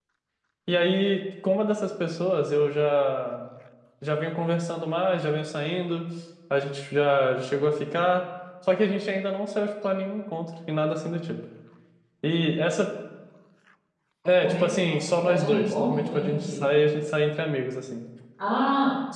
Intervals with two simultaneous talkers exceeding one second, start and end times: 14.4-16.6

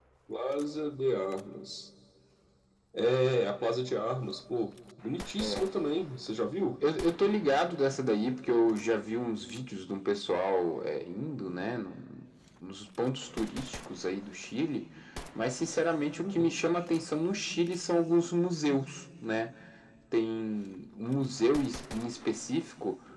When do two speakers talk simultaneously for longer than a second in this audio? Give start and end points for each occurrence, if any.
none

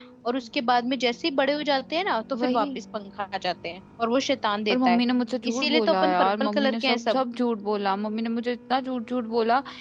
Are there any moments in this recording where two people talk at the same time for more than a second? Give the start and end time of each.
5.5-7.2

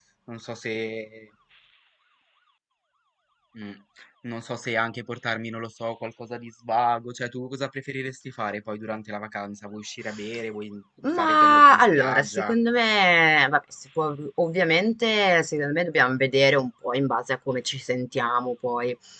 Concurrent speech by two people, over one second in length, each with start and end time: 11.2-12.6

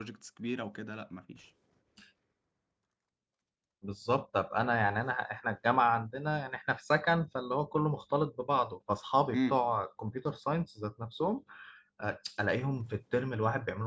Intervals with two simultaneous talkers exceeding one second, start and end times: none

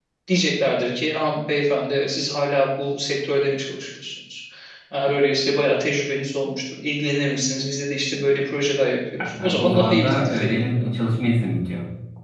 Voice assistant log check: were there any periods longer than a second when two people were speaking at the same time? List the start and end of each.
9.2-10.9

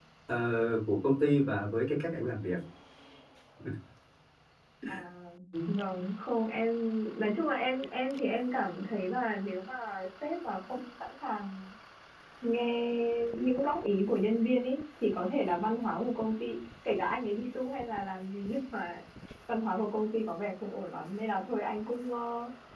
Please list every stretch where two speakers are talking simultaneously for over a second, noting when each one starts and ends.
none

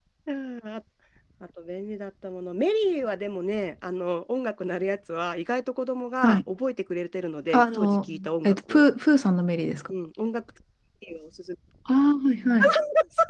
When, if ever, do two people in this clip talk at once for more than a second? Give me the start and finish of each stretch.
7.5-8.8

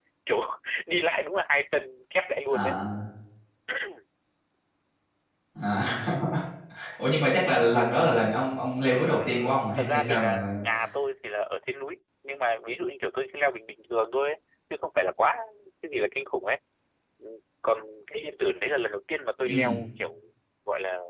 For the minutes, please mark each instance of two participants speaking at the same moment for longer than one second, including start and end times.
9.1-10.6

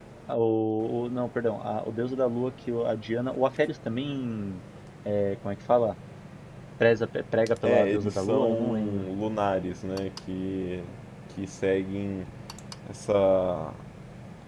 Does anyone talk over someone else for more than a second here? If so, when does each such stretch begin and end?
7.6-9.1

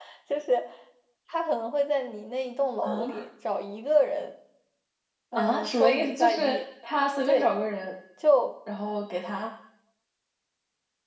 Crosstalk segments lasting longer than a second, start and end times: 5.3-6.6

